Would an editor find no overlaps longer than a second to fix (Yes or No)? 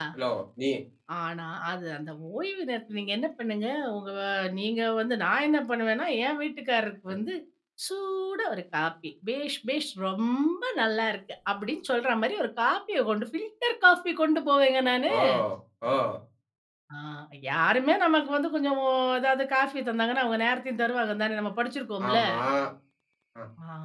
Yes